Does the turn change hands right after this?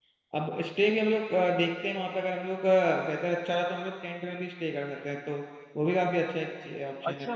Yes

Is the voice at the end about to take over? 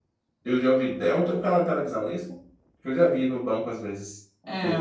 Yes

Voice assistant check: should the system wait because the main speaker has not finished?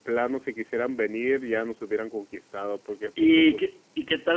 No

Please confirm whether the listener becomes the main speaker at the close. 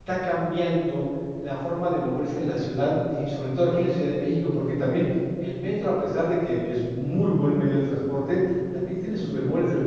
No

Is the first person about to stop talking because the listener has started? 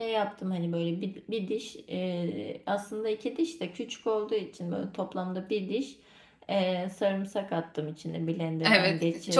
Yes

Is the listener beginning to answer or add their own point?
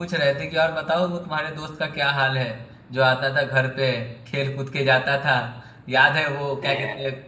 No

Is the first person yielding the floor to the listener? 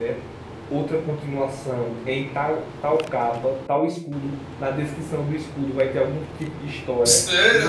Yes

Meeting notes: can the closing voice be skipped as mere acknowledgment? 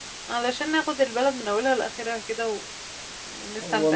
No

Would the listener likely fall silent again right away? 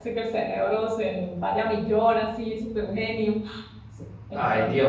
No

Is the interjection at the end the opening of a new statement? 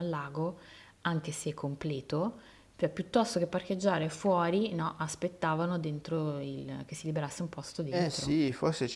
Yes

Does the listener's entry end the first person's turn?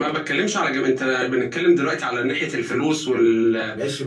Yes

